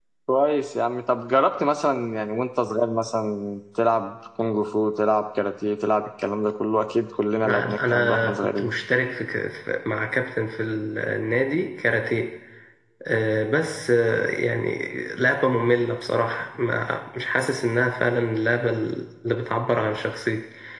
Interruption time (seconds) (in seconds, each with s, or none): 7.4 s